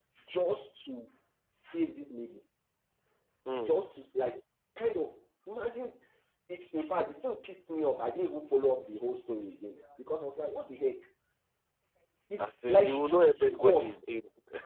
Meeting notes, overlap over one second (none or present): present